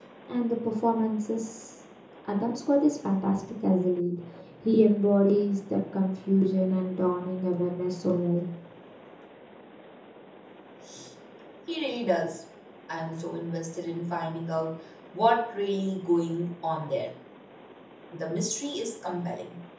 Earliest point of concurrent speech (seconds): none

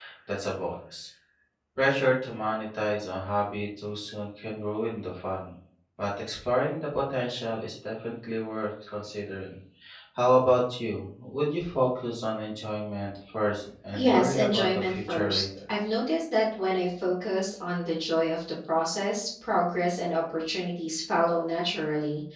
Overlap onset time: 14 s

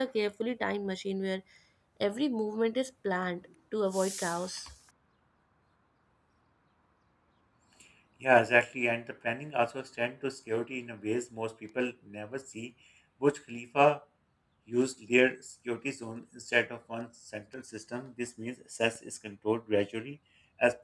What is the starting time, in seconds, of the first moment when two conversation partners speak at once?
none

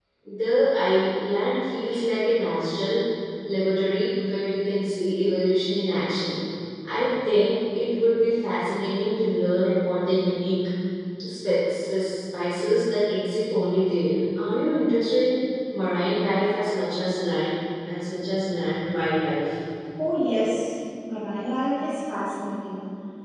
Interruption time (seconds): none

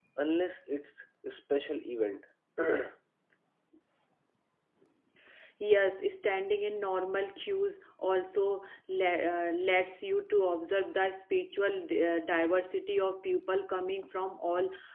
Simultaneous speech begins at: none

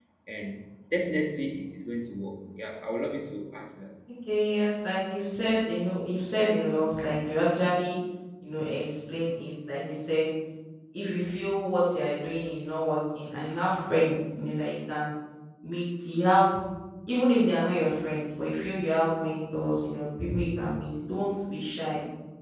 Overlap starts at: none

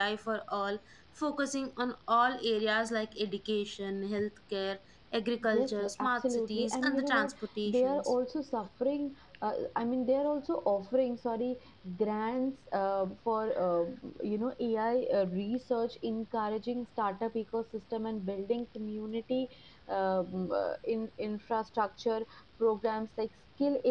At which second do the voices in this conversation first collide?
5 s

